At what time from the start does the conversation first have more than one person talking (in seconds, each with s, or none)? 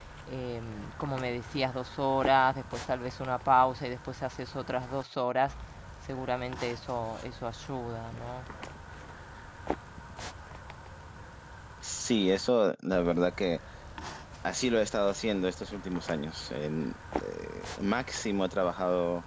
none